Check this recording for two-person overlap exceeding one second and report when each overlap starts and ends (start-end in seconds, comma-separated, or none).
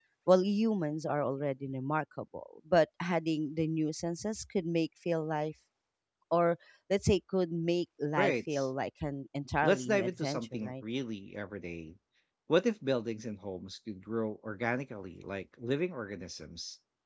9.6-10.8